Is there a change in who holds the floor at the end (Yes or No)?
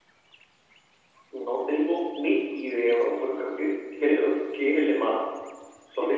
Yes